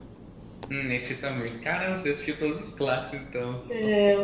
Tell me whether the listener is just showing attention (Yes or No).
No